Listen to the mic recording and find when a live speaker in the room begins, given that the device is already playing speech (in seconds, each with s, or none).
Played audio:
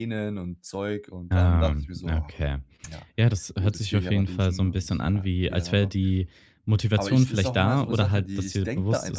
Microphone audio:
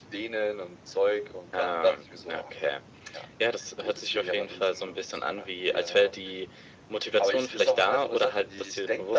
none